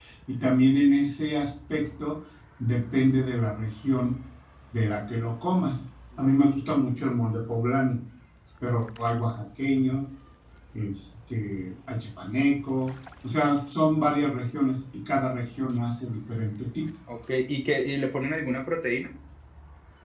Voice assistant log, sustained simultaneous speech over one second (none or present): none